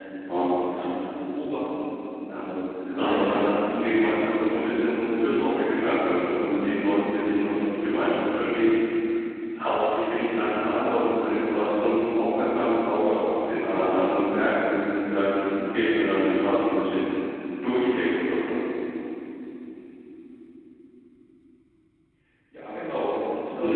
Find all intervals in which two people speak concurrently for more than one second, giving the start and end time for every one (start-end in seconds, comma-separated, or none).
2.9-4.2